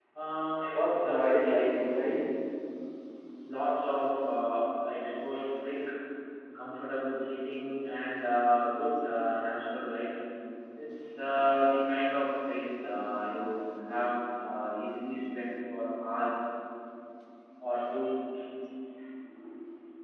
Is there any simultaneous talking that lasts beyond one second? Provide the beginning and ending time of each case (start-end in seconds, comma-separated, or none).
0.7-2.1